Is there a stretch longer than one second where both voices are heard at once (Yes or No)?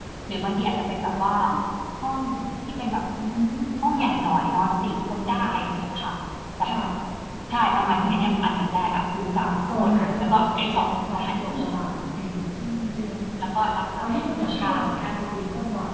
Yes